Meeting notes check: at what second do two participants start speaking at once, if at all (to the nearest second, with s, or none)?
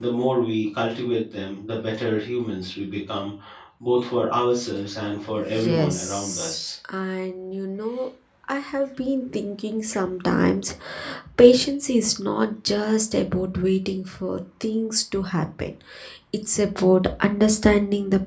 5 s